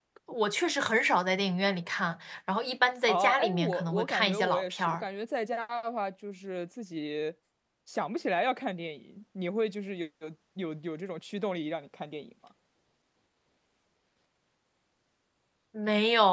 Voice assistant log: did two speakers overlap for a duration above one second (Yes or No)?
Yes